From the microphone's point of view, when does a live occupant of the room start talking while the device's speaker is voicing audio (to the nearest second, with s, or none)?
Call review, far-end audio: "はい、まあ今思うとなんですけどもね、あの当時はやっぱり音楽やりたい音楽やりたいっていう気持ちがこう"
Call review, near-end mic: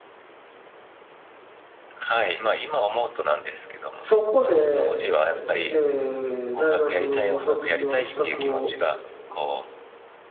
4 s